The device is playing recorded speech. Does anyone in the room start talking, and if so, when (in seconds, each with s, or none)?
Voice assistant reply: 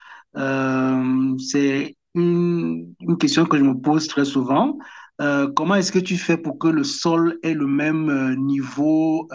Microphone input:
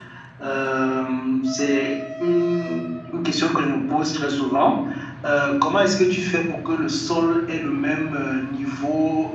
none